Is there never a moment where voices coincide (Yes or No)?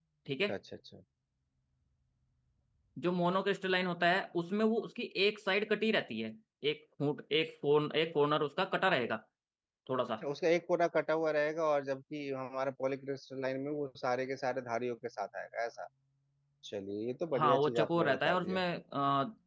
No